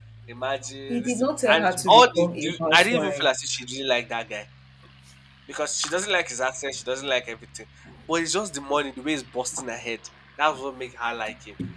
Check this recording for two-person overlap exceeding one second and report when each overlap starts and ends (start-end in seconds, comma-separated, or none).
0.9-3.3